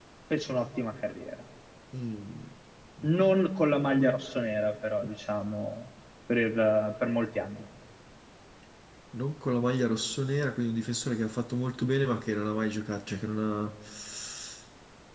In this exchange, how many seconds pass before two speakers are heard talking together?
none

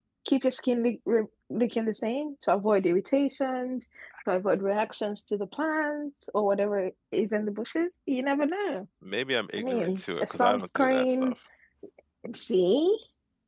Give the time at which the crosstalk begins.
9.6 s

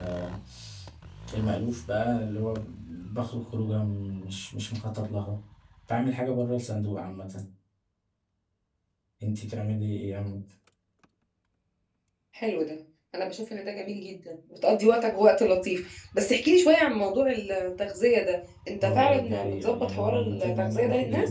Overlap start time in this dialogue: 18.8 s

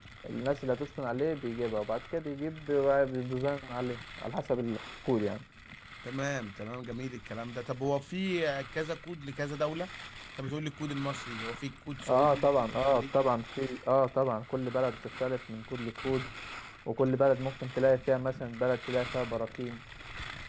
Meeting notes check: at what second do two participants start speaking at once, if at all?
12.0 s

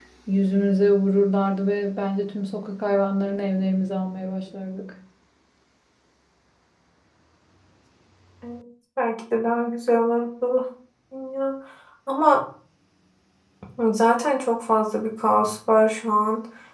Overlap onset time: none

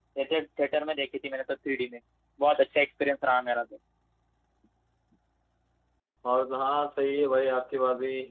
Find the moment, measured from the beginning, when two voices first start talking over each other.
none

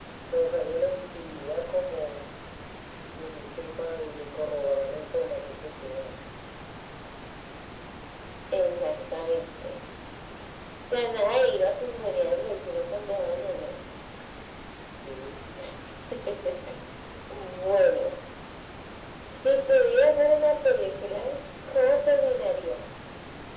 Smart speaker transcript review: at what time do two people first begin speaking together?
none

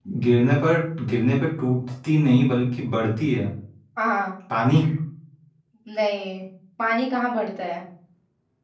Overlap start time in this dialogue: none

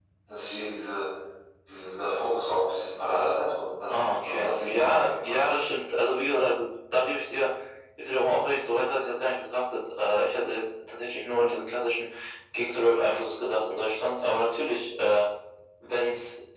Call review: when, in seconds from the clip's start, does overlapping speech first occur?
3.9 s

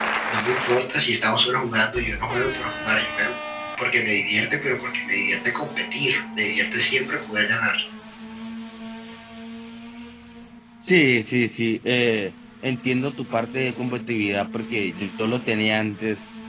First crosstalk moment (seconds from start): none

